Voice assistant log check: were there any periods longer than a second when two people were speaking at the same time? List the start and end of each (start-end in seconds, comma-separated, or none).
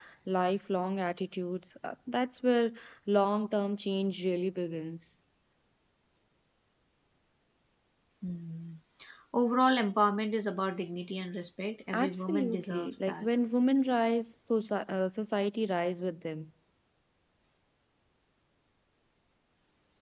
11.9-13.3